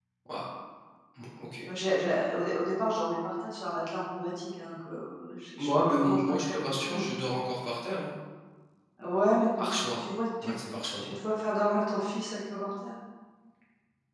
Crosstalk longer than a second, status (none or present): present